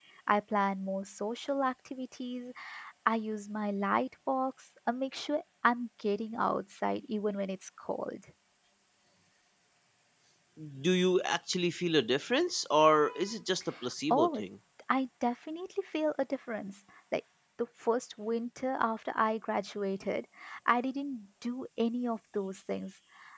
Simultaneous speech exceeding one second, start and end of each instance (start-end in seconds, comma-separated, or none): none